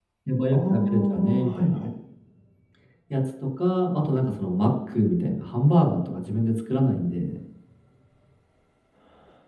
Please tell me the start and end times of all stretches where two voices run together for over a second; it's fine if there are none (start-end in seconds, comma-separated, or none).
0.5-1.8